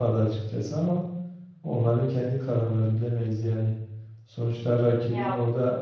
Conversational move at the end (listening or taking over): listening